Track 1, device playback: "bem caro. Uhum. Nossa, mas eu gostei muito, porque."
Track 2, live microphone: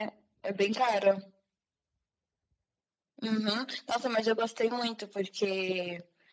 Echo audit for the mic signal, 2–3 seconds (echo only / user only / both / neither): neither